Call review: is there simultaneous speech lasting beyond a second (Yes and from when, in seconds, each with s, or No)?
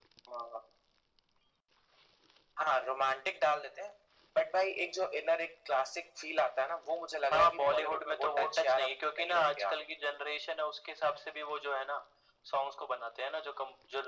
Yes, from 7.3 s